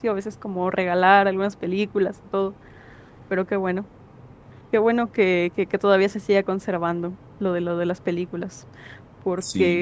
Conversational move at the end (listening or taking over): taking over